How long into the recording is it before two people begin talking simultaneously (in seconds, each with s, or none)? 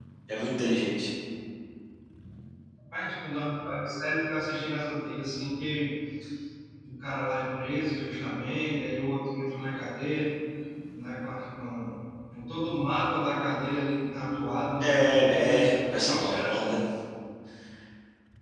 14.8 s